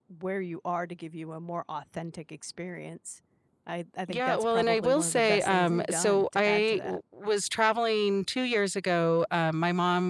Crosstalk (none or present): present